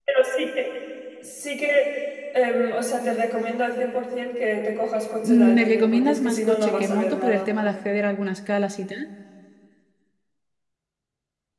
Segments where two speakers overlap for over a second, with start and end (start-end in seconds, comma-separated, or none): 5.2-7.5